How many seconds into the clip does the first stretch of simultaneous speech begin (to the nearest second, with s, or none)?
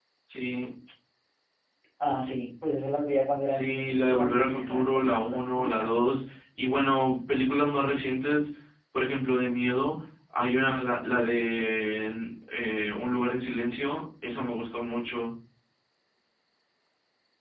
3 s